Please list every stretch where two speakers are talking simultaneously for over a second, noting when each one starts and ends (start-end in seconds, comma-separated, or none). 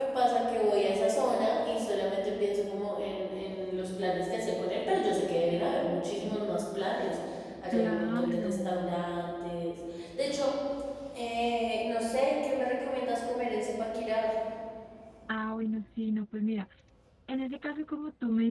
7.7-9.1